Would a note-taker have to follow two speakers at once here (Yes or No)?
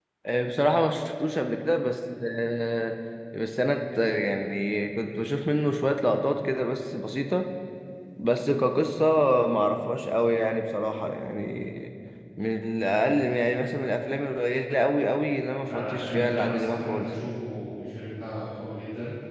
Yes